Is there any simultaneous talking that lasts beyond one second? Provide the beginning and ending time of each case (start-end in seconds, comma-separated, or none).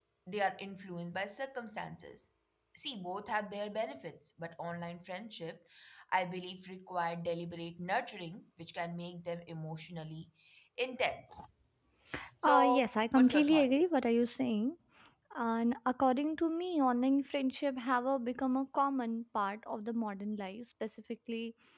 12.4-13.7